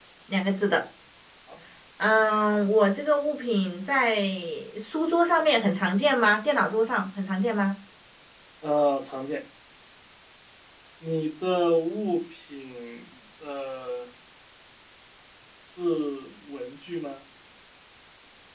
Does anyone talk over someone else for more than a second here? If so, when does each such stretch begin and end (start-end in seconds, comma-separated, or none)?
none